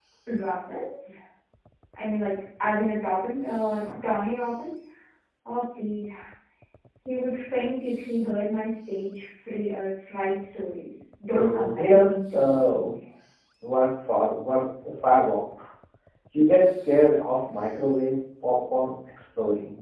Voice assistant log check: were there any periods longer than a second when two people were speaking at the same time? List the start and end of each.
11.3-12.9

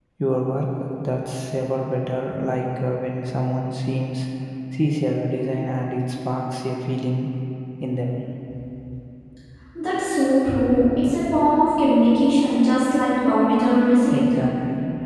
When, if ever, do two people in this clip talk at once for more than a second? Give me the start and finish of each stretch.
none

